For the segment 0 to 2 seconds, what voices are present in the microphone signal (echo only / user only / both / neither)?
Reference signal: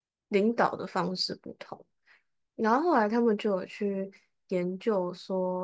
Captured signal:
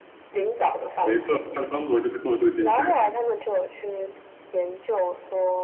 both